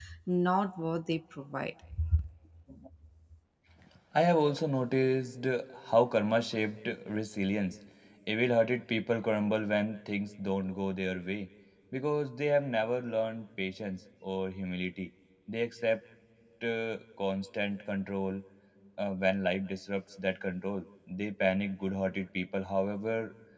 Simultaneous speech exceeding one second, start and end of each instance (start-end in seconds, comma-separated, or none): none